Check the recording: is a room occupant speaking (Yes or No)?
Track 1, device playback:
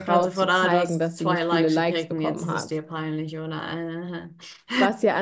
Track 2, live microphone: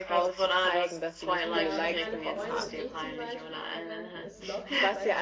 Yes